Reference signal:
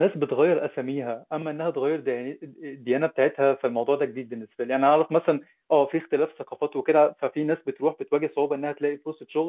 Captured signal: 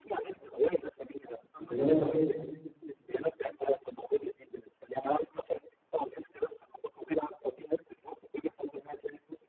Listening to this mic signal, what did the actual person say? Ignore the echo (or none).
كنت جاي لك أقول لك